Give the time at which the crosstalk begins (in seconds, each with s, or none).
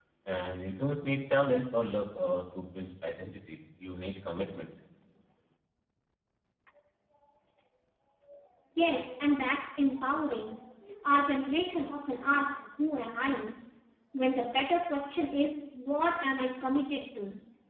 none